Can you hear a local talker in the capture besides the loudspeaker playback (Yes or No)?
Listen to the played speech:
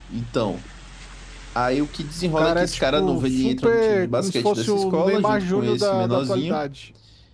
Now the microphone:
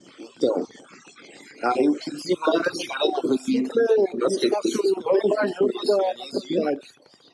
No